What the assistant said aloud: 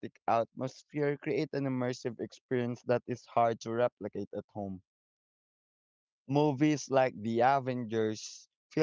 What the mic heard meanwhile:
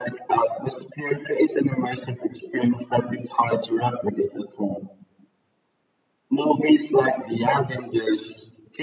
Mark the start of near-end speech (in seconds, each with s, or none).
none